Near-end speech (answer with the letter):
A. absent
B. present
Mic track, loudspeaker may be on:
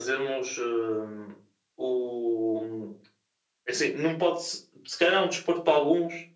A